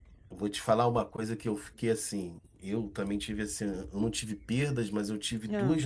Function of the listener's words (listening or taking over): listening